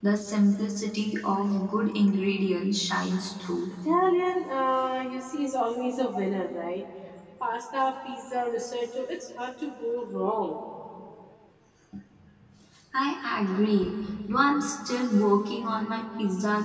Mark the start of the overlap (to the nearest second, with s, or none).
none